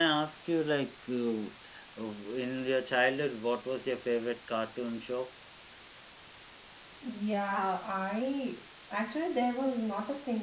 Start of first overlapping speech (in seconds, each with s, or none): none